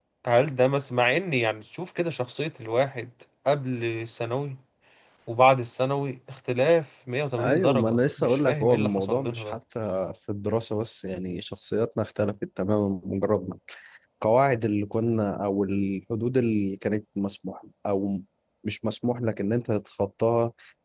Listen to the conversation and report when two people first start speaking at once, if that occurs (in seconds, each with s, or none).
7.4 s